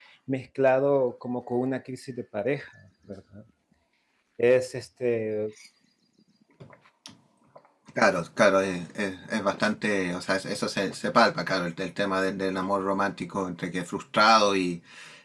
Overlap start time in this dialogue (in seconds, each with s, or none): none